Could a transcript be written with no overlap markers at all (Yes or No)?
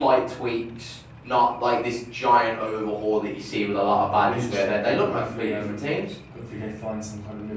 No